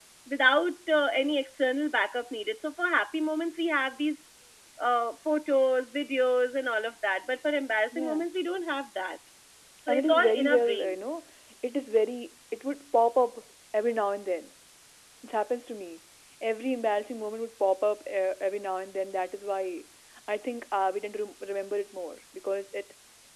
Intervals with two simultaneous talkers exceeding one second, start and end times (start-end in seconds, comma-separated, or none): 9.9-11.2